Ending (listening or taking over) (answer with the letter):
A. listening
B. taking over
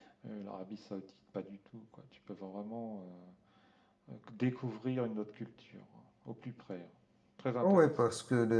B